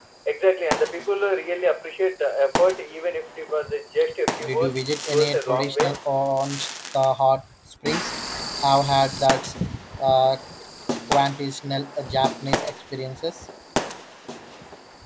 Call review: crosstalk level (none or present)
present